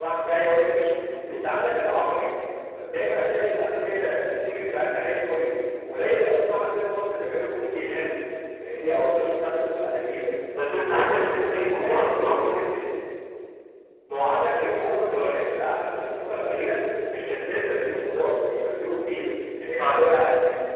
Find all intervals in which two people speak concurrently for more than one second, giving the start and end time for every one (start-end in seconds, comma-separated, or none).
10.8-12.1